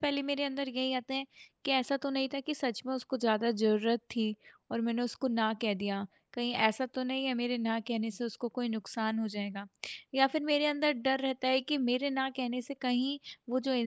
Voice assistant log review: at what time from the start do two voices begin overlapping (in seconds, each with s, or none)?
none